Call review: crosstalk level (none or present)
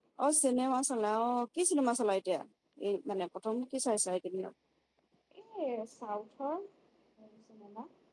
none